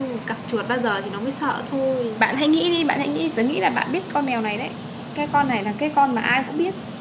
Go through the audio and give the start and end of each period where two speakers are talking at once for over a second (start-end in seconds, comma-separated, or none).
none